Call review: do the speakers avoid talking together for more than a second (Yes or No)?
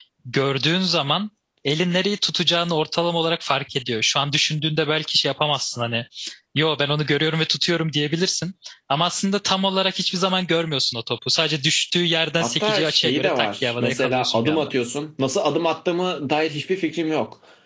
No